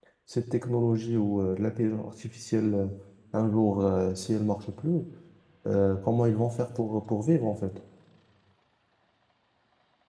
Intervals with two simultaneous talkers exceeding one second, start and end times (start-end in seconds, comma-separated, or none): none